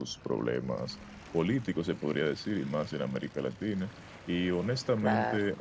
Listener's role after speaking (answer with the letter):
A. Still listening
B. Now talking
A